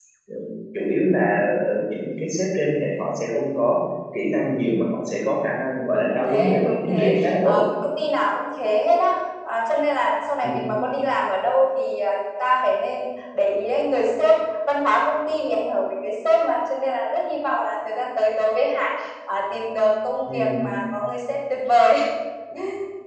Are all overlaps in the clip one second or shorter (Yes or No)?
No